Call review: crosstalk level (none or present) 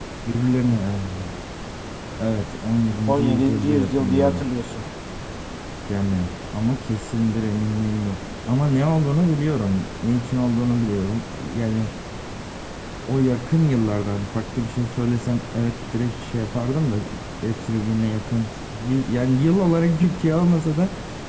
present